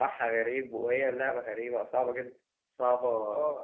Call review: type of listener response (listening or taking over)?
listening